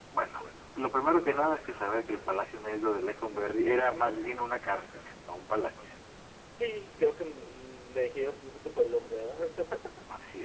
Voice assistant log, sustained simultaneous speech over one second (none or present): none